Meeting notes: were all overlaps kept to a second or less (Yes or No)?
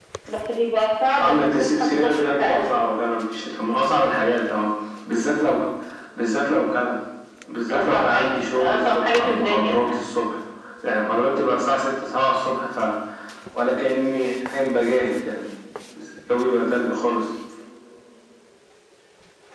No